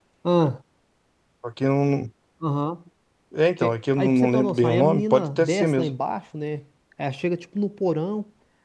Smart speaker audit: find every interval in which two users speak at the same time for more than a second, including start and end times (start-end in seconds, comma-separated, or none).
3.6-5.9